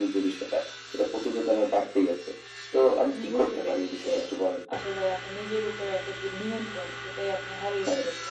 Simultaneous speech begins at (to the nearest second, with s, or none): 3 s